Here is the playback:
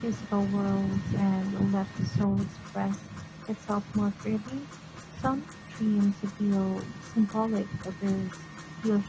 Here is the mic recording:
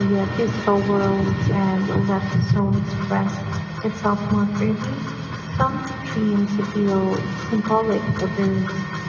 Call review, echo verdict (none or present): present